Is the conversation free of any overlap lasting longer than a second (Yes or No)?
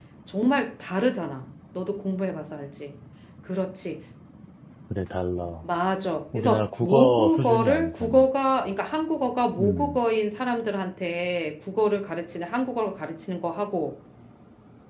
No